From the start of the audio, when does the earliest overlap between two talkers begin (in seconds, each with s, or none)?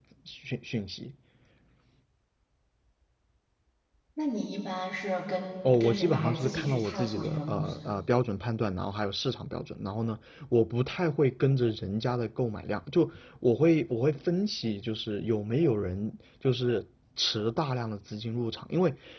5.6 s